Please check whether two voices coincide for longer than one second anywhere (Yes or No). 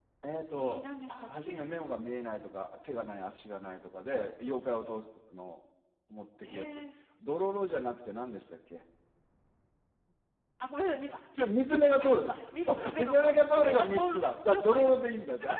Yes